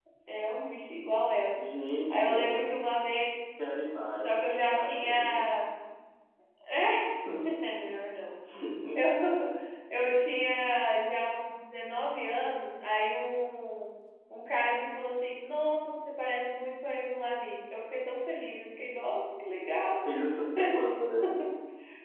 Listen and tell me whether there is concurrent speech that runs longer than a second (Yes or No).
Yes